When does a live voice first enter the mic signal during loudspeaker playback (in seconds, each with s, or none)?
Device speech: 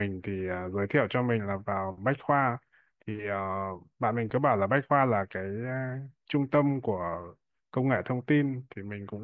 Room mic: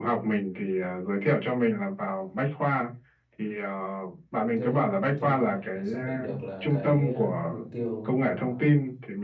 4.4 s